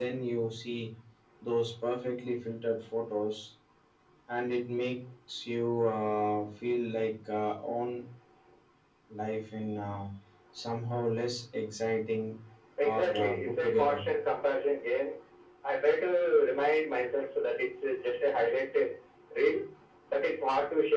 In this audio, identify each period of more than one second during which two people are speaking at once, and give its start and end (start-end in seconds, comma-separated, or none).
12.8-14.0